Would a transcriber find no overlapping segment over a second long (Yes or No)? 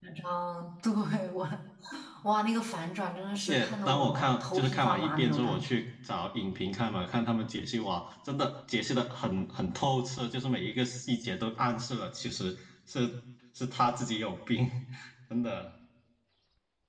No